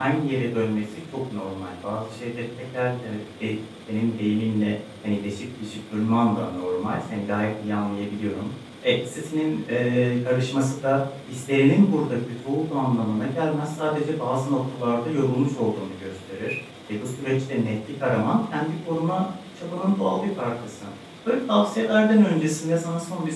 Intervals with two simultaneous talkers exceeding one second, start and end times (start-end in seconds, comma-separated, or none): none